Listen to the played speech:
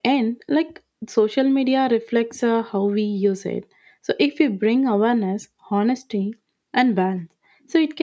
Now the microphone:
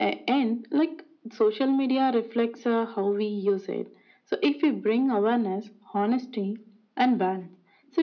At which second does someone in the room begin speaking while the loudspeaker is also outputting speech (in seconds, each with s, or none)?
none